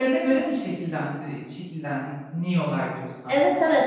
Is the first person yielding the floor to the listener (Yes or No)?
Yes